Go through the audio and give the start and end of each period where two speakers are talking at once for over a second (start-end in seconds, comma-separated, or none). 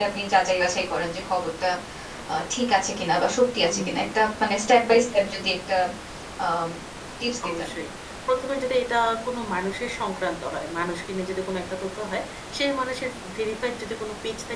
none